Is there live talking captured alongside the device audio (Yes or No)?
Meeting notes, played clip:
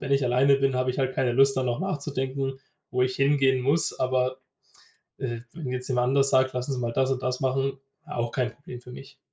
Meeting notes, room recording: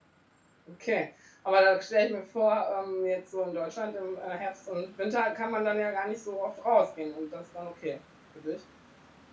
Yes